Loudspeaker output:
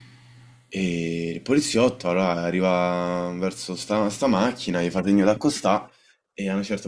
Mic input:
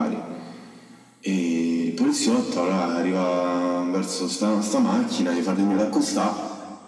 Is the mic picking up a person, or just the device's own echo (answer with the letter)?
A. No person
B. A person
A